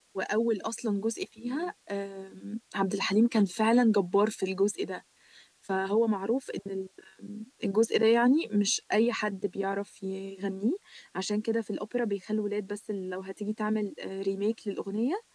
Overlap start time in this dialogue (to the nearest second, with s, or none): none